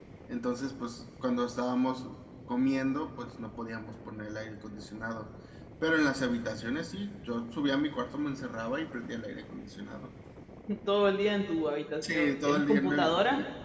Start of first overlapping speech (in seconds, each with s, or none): 12.0 s